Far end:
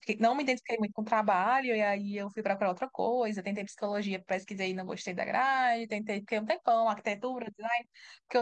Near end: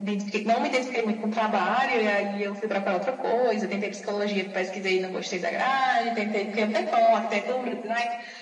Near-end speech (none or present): none